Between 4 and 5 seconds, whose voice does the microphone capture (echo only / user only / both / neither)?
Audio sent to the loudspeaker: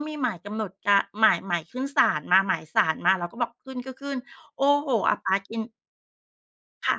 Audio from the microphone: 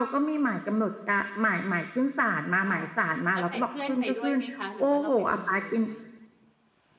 both